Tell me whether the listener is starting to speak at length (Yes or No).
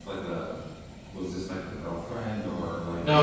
Yes